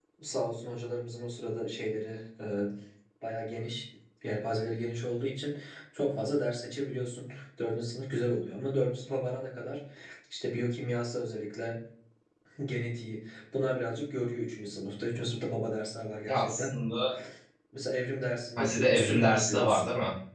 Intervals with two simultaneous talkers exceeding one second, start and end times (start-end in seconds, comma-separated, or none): 18.6-19.8